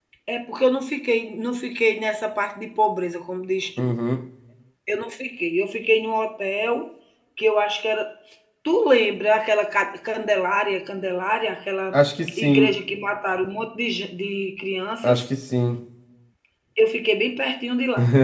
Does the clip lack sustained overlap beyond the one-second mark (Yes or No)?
Yes